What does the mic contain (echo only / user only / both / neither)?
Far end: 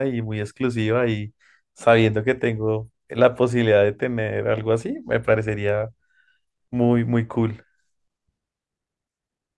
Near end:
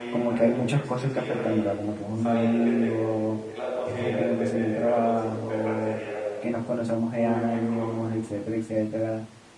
both